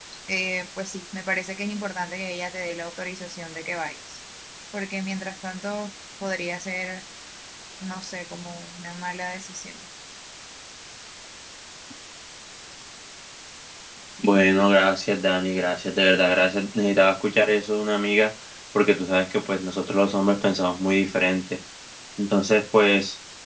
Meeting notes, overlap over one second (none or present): none